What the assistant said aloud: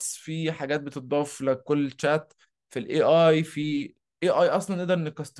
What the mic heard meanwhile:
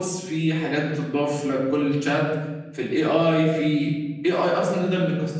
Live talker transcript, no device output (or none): none